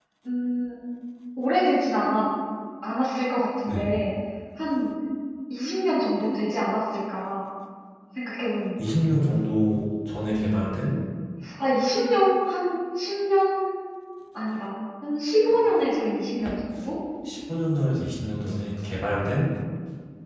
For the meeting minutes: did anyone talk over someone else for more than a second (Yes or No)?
No